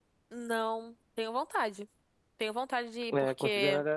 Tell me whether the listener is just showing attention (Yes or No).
No